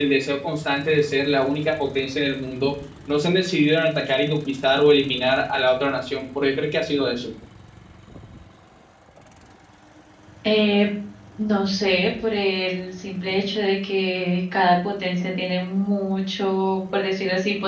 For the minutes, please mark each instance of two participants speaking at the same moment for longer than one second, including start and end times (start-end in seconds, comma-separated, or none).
none